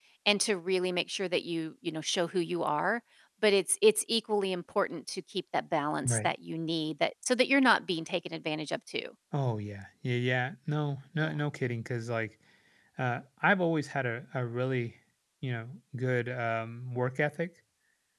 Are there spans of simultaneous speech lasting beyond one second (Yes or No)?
No